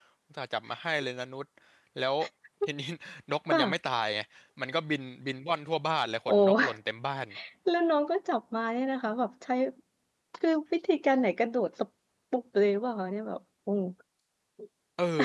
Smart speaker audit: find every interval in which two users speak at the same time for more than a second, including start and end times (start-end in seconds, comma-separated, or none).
none